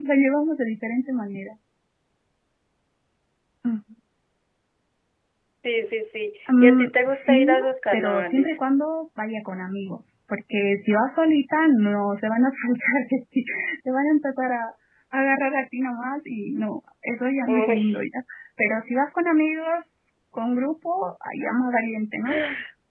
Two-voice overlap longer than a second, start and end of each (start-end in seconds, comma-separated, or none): 6.6-8.6